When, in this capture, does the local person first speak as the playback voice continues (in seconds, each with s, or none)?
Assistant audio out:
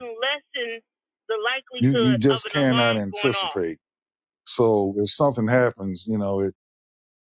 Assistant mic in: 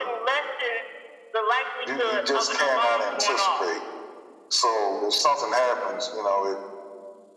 none